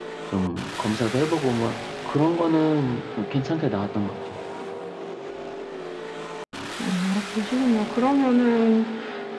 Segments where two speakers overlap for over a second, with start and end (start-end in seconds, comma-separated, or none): none